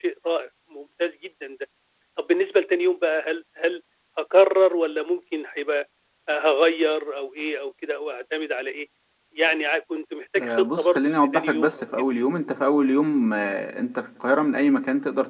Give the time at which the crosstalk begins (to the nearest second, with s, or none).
10 s